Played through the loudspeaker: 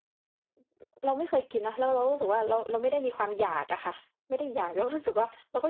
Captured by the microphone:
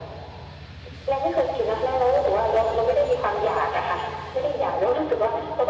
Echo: present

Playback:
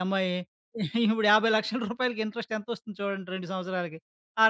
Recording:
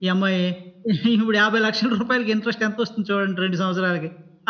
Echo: present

